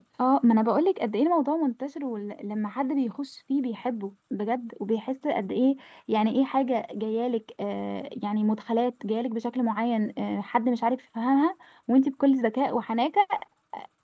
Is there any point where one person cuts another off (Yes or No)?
No